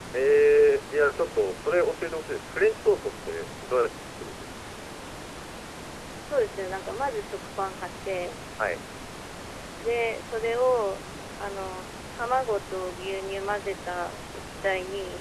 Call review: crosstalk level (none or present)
none